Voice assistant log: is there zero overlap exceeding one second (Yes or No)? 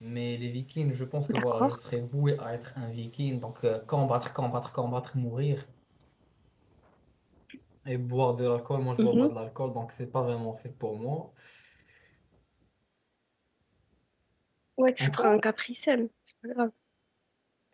Yes